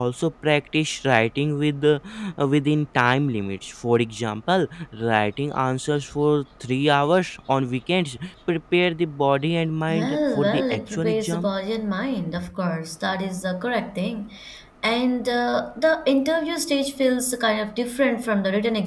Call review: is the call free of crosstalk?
No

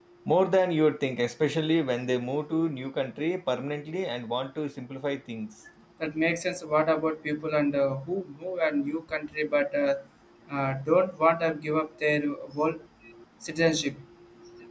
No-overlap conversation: Yes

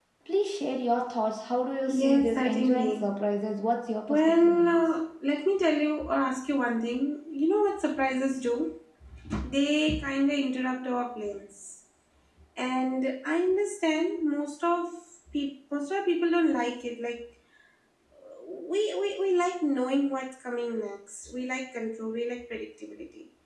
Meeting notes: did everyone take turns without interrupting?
No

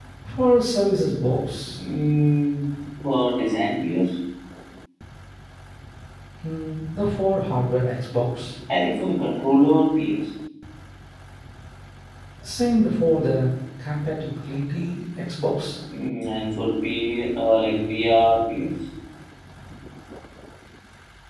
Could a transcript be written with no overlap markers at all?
Yes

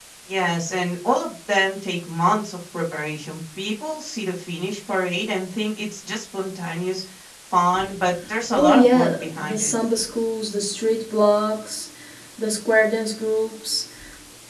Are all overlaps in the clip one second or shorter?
No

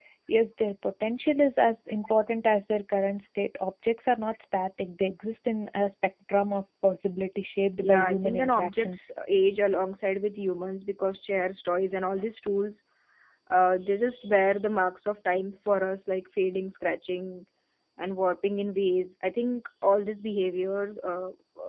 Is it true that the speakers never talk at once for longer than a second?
No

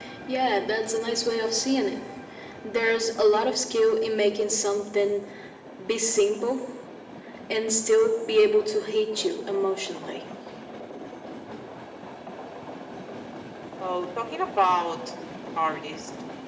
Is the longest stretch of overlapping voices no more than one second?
Yes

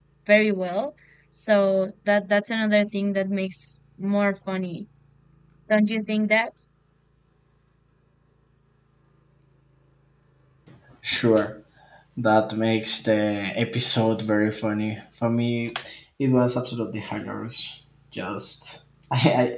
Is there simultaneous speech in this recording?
No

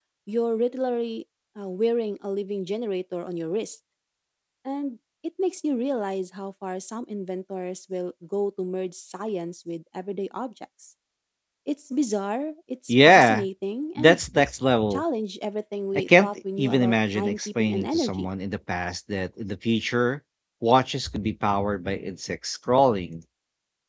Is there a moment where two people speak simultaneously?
Yes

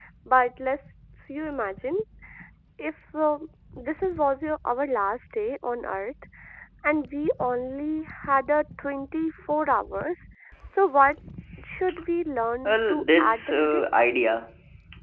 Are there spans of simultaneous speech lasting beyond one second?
Yes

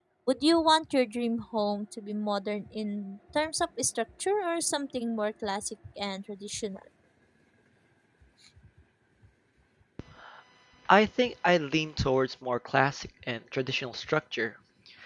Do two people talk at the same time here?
No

